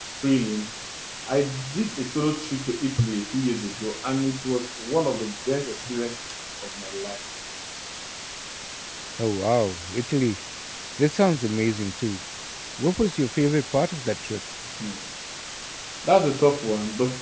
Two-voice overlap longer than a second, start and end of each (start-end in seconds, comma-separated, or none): none